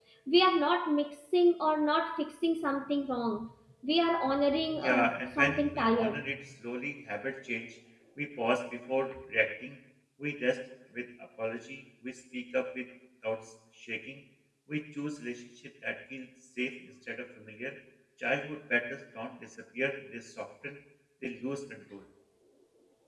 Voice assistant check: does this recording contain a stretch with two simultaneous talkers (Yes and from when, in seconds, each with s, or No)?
Yes, from 4.8 s